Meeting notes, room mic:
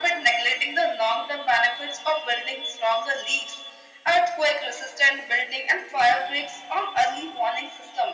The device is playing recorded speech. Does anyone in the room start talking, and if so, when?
none

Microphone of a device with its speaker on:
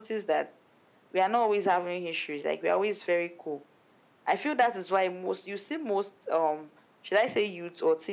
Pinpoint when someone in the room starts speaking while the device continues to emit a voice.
none

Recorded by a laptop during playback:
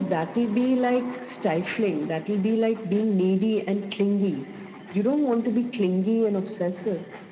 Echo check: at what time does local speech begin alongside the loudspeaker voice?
none

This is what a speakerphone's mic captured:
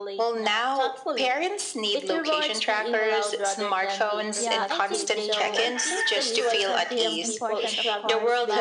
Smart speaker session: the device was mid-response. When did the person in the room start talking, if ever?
4.4 s

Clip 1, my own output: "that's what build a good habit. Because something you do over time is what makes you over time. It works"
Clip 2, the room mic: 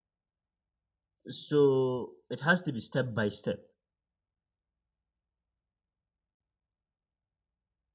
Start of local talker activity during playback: 1.3 s

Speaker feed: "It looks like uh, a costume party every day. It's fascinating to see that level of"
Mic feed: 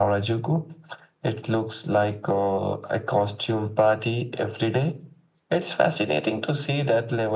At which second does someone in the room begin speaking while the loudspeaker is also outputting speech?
none

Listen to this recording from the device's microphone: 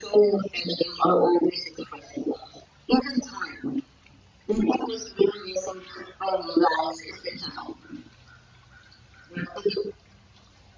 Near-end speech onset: none

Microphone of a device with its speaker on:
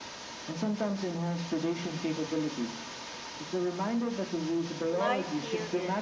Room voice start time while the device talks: 4.9 s

